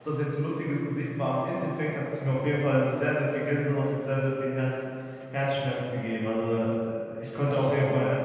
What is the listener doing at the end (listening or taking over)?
listening